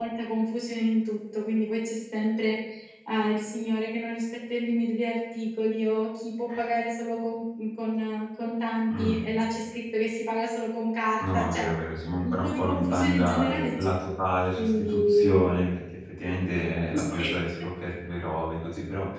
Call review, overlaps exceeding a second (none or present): present